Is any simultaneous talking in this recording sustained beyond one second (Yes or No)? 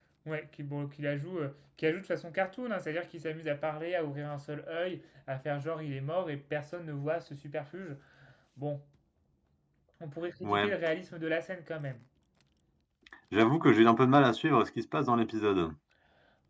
No